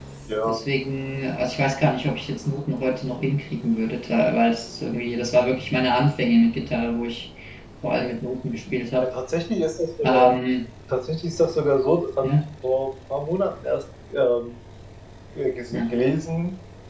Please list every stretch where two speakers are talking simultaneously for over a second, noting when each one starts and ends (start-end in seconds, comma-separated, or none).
none